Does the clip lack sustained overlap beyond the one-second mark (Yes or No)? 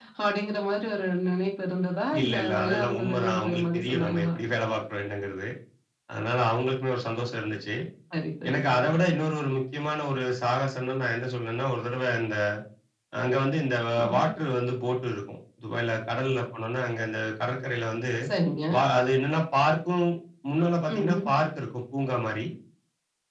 No